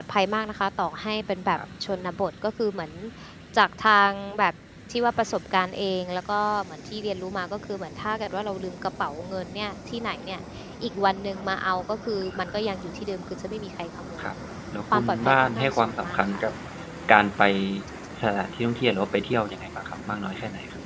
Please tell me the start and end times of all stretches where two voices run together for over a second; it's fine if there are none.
14.9-16.4

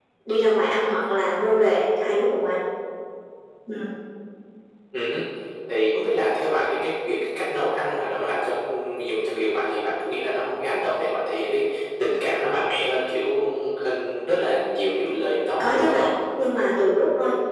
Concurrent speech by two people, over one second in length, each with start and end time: none

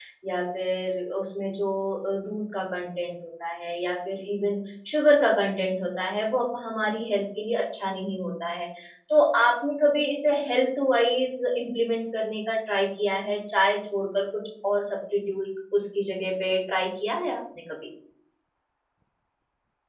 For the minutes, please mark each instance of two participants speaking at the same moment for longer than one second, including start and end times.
none

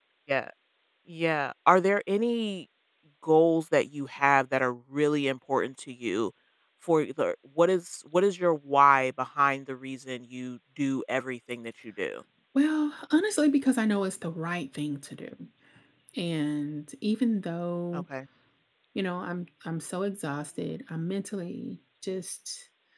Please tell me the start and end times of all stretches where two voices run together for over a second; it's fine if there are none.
none

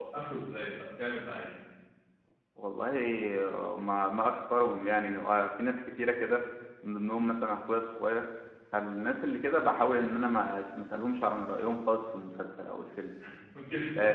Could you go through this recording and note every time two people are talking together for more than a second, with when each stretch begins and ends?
none

